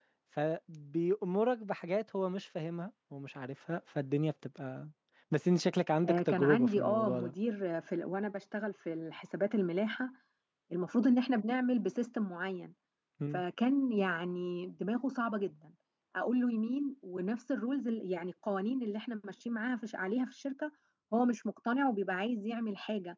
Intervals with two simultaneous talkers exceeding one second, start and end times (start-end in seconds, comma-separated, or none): 6.1-7.3